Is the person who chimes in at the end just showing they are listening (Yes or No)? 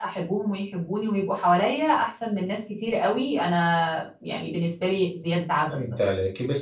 No